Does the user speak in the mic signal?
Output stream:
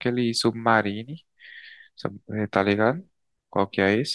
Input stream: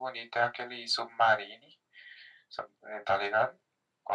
No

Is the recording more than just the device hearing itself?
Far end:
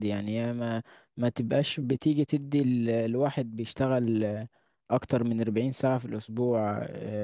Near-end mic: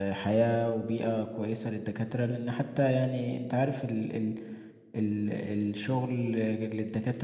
Yes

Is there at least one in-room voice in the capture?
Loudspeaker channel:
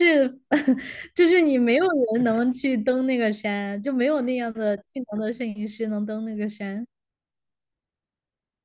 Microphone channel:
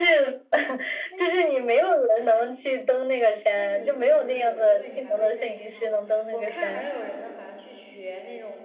Yes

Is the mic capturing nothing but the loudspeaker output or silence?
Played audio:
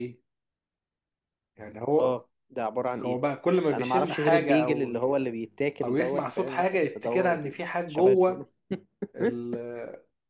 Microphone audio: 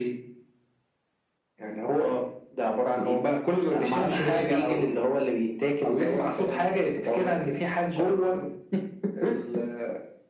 Yes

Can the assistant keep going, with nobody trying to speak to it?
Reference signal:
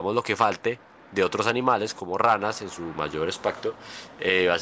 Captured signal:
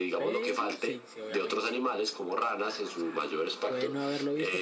No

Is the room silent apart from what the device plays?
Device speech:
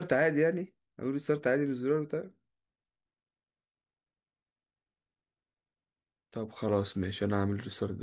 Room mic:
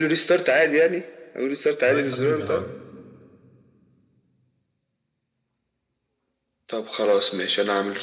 No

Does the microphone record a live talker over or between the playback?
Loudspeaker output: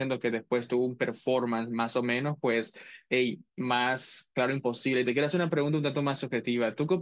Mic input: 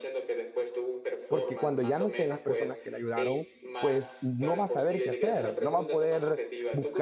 Yes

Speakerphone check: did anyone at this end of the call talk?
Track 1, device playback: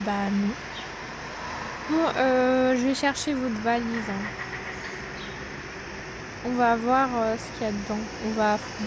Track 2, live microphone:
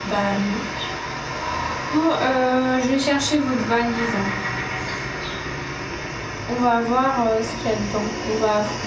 No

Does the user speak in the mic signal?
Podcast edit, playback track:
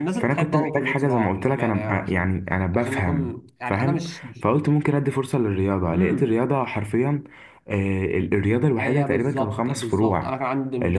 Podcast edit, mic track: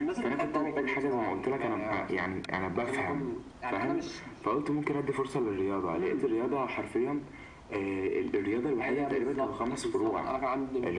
No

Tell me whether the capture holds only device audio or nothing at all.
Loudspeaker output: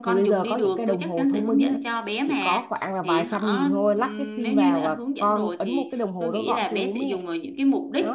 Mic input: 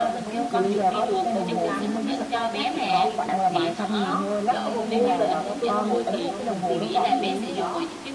No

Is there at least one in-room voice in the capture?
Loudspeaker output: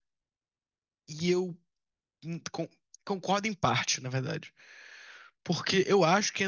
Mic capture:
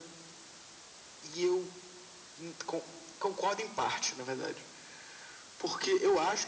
No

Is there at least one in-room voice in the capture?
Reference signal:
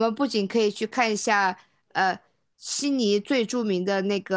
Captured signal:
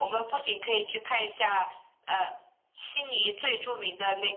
No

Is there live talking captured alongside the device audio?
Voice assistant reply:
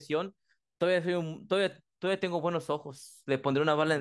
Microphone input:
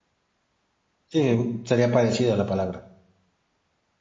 Yes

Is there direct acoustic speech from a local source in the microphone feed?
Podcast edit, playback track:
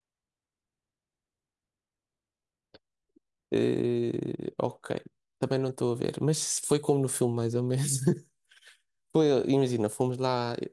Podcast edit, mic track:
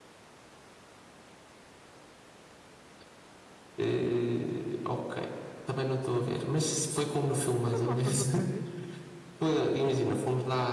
Yes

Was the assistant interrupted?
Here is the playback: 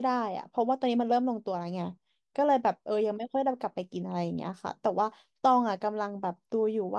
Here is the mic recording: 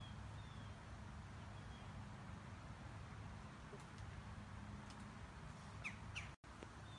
No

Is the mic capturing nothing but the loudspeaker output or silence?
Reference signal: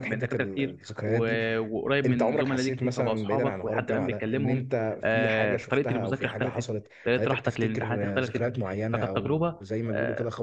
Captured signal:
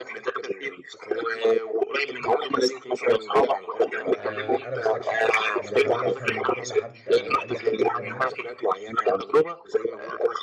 No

